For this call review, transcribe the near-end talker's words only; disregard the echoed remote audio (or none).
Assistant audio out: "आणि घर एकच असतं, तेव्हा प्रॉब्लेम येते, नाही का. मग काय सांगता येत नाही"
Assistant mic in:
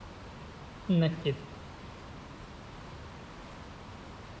नक्कीच.